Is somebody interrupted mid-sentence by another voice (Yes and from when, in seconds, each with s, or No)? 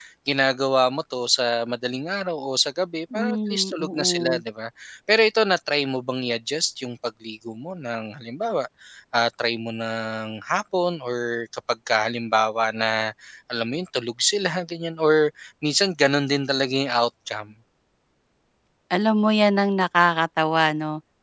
Yes, from 3.1 s